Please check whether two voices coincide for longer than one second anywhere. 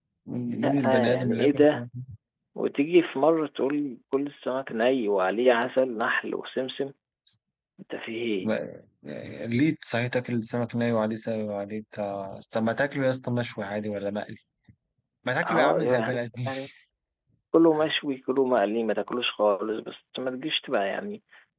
Yes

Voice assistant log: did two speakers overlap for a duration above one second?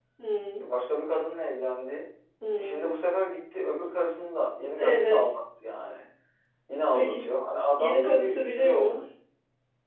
Yes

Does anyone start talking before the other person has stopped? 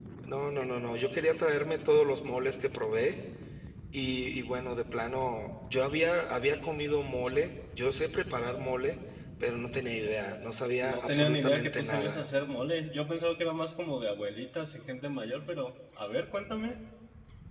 Yes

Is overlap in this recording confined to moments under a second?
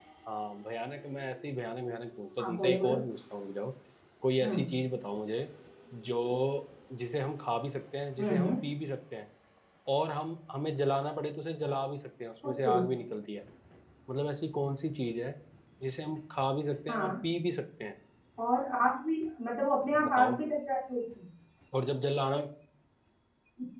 Yes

